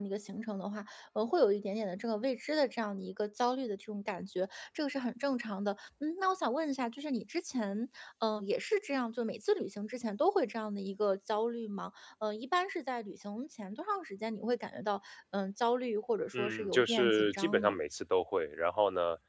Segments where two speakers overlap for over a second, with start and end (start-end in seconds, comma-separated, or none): 16.3-17.8